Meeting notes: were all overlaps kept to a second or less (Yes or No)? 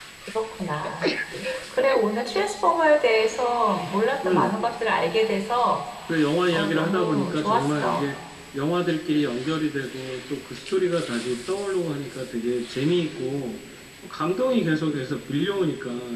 No